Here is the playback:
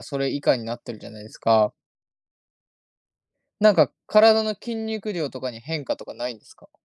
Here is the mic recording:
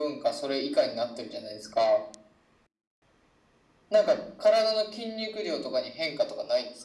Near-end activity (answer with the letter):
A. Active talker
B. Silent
B